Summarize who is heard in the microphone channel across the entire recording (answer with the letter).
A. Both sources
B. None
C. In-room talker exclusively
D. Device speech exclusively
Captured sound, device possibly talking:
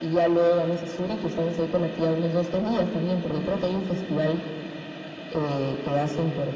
D